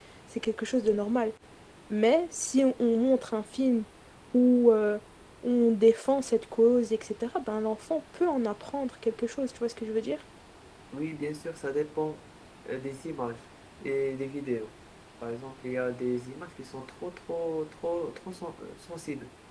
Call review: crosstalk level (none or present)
none